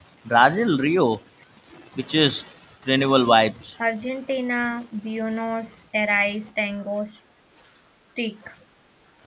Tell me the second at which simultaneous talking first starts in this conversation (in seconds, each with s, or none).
none